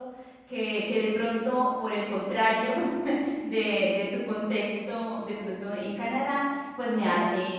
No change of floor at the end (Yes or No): Yes